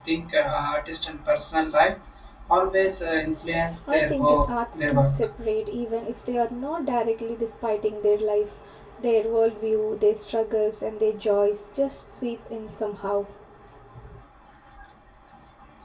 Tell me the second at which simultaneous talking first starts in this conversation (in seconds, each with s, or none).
3.9 s